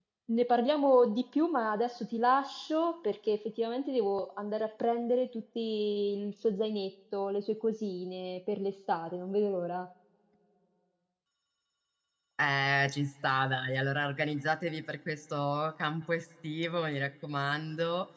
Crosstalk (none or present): none